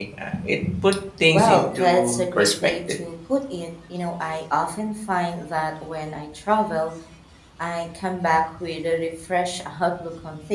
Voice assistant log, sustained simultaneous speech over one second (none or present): present